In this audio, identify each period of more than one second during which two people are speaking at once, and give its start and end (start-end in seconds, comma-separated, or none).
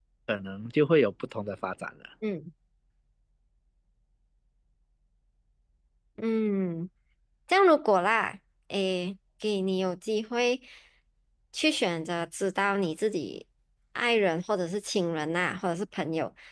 none